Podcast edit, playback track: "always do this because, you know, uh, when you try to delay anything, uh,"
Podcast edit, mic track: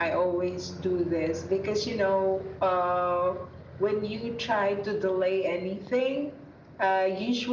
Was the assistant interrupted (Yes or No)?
No